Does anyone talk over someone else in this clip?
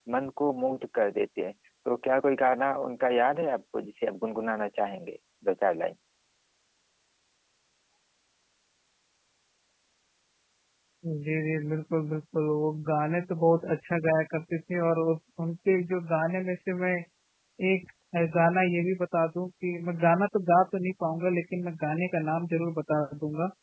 No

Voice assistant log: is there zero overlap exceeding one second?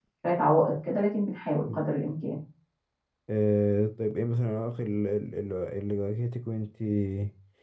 Yes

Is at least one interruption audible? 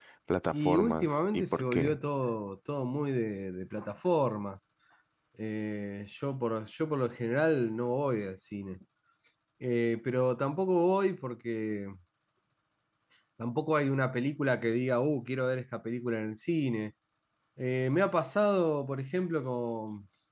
Yes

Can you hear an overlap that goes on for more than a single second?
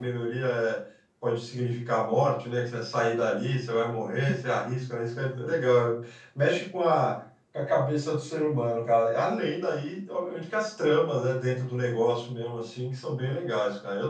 No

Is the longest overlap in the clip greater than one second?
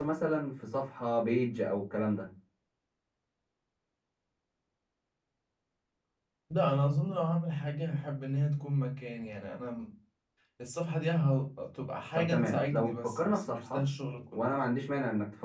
Yes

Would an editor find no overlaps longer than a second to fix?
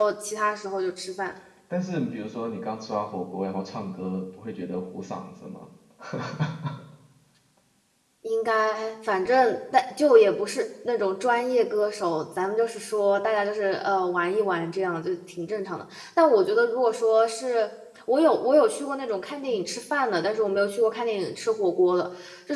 Yes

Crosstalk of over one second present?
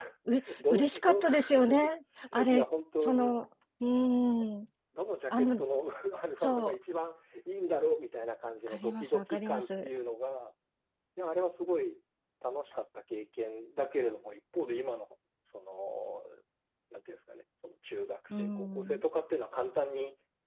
Yes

